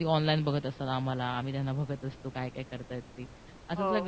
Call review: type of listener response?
listening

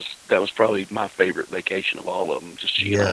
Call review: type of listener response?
taking over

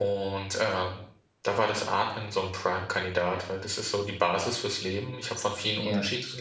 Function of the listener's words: listening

